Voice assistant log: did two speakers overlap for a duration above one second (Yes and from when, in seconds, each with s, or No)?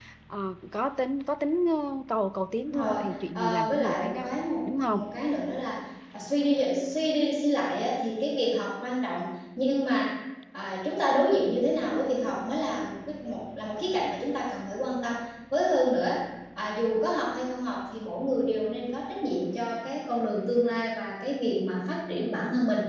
Yes, from 2.6 s